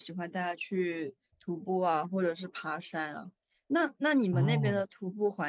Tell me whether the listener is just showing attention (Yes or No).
Yes